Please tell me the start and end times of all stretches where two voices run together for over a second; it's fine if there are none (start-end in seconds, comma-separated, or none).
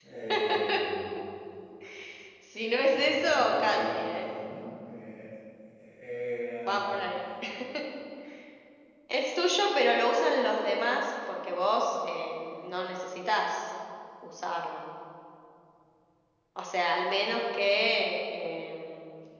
2.9-4.3